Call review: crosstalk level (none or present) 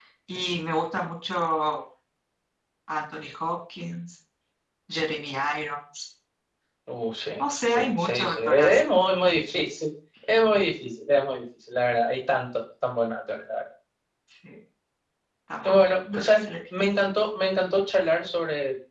present